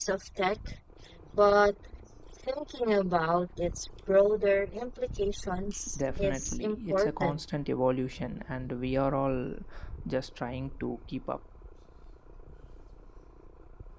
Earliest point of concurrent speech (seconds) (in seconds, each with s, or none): 6.0 s